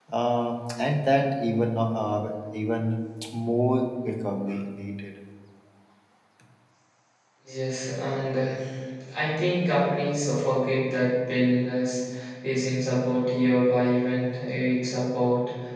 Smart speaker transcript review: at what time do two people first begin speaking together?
none

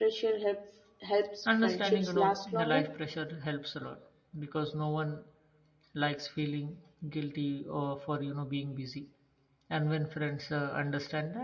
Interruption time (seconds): 1.6 s

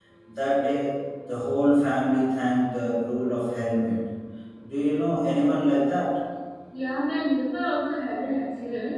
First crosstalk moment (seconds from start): none

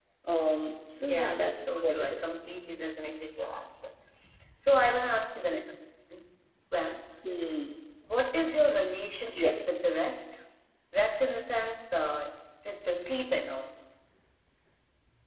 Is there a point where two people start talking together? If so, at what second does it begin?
1.0 s

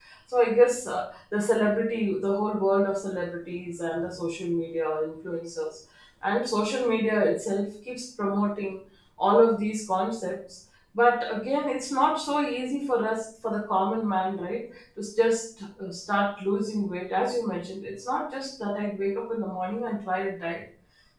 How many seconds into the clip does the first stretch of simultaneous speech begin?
none

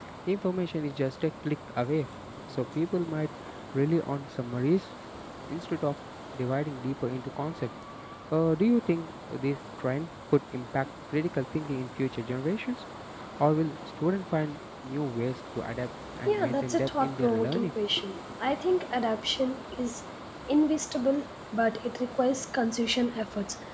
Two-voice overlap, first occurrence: 16.3 s

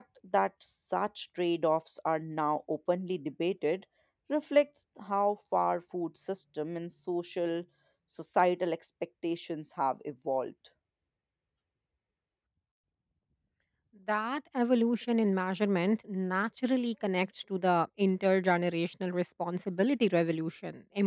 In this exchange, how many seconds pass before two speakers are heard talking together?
none

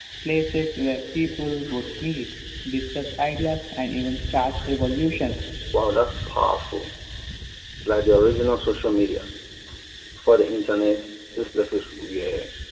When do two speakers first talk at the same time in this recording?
none

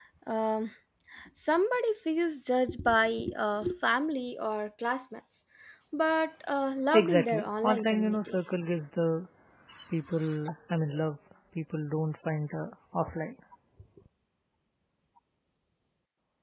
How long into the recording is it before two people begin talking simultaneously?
6.9 s

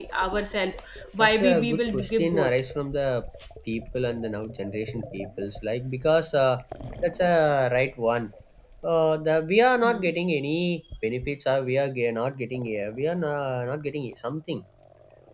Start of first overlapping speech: 1.2 s

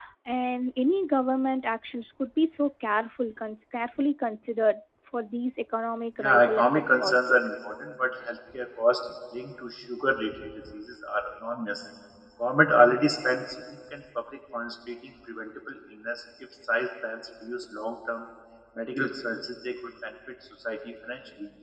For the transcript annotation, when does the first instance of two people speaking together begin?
6.2 s

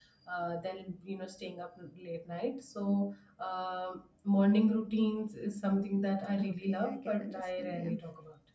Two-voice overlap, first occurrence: 6.4 s

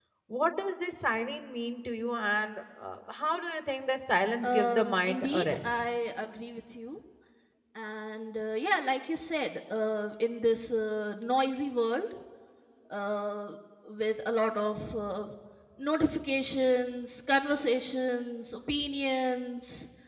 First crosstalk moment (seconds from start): 4.4 s

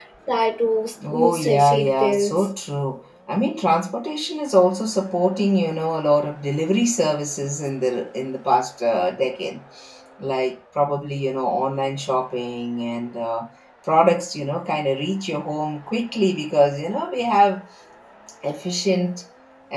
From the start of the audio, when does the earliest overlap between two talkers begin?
1.1 s

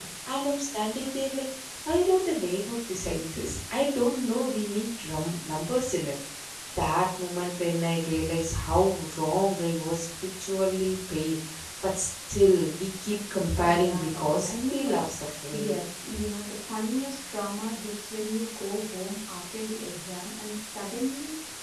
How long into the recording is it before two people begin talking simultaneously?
13.6 s

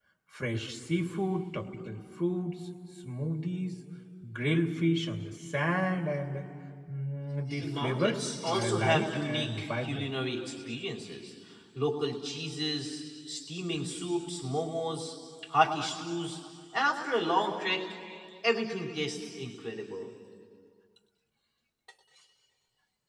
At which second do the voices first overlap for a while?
7.6 s

